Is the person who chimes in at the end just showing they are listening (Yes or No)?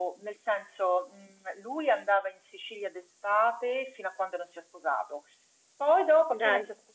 Yes